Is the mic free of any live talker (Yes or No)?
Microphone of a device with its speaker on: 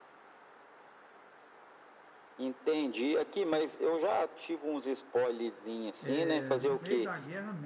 No